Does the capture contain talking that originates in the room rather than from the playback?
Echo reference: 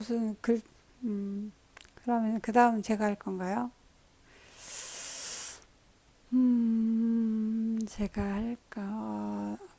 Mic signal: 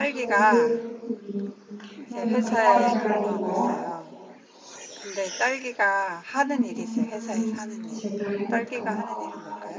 Yes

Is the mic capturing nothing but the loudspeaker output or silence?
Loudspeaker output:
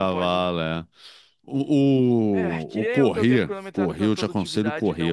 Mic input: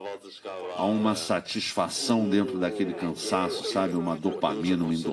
No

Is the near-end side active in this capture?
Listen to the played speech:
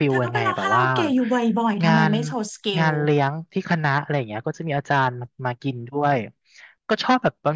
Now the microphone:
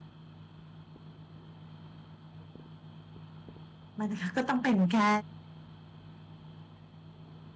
Yes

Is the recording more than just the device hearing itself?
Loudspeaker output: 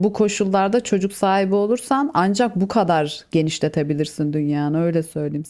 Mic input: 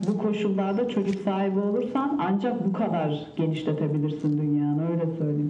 No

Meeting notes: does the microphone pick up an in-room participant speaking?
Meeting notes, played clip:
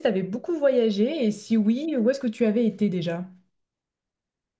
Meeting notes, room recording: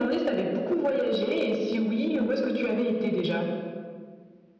No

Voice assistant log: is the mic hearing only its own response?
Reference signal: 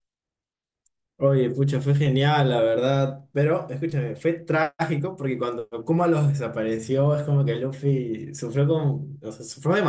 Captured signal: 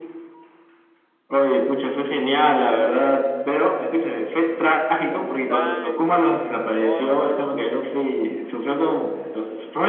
No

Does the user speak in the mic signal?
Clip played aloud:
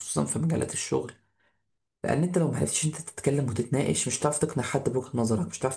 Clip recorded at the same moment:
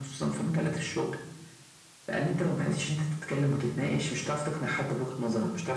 No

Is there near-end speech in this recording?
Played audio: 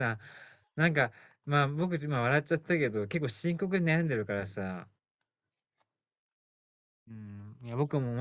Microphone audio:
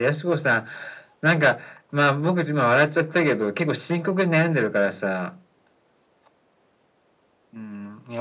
No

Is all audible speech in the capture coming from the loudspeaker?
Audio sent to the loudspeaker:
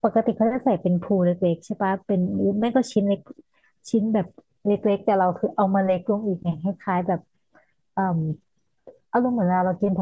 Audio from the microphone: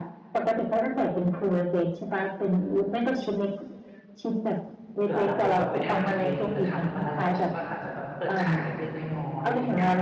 No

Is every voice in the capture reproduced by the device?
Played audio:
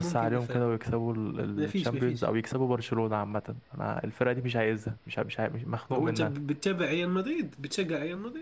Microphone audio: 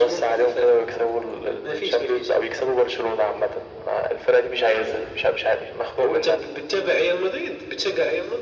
Yes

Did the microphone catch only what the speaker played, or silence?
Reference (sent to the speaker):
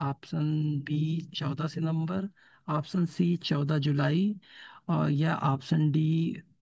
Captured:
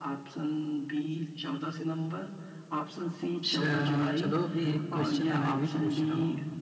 No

